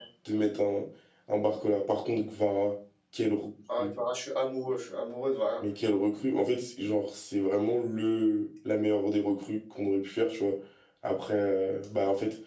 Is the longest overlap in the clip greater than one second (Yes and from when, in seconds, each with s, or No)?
No